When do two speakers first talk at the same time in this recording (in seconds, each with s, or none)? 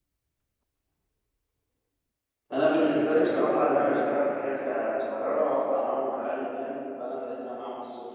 2.5 s